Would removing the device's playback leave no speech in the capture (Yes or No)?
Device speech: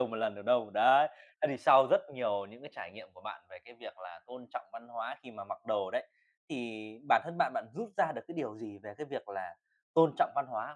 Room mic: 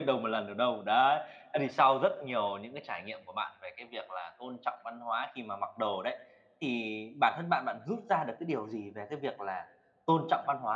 Yes